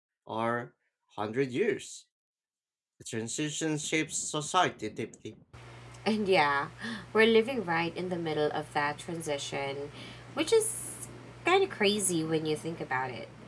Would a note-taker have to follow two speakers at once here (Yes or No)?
No